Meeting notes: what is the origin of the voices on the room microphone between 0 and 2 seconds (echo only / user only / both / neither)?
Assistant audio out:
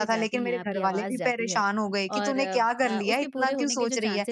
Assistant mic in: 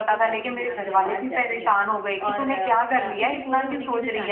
echo only